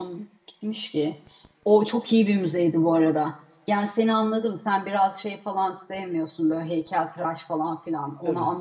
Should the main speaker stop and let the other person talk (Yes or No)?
No